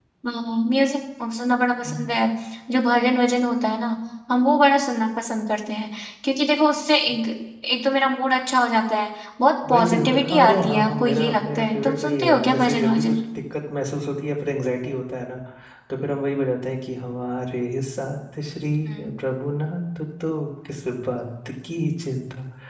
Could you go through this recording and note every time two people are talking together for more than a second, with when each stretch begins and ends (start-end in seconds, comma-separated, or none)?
9.7-13.2